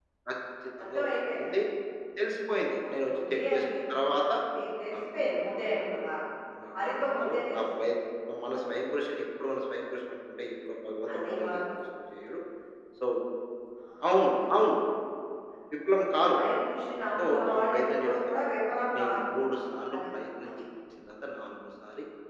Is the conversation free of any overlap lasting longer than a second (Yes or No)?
No